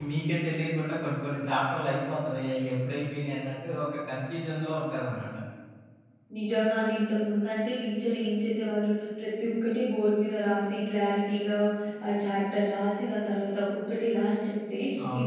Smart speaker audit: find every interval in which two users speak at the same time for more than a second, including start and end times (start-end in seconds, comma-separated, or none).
none